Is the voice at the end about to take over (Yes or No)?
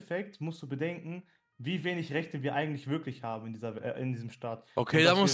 Yes